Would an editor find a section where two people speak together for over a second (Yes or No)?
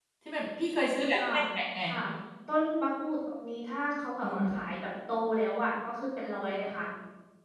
No